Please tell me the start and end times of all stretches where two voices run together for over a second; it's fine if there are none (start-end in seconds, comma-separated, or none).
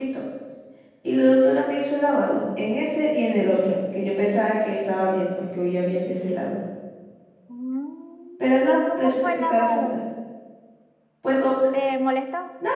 8.4-10.0